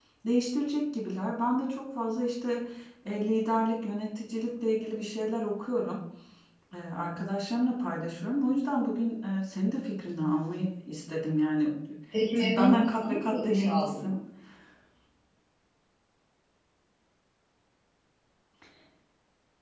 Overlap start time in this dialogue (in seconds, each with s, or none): 12.3 s